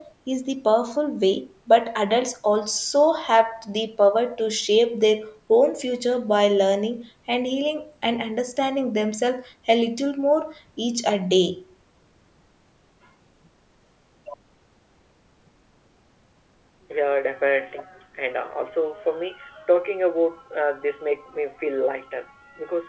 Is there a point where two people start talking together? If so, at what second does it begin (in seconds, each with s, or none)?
none